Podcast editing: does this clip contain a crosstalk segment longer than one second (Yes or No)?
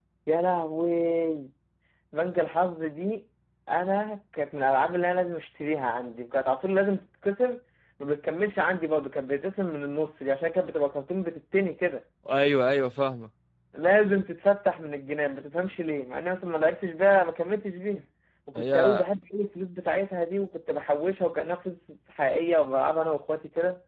No